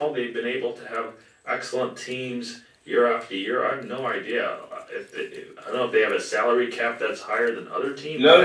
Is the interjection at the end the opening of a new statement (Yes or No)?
Yes